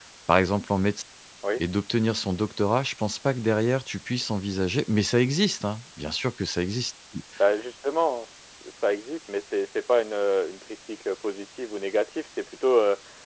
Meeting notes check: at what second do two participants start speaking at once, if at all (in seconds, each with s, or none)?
none